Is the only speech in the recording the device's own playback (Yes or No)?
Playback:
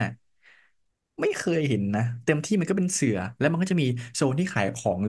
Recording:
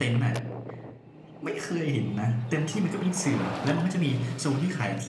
Yes